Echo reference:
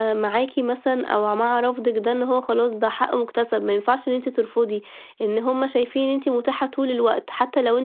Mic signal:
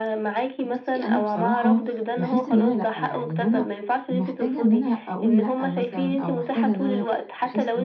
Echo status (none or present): present